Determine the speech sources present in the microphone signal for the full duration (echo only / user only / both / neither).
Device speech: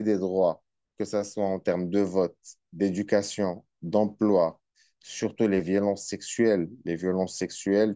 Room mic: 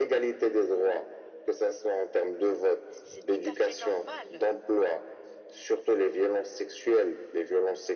both